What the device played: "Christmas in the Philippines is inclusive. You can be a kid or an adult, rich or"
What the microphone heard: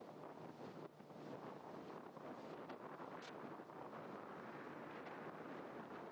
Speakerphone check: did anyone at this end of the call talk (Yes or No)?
No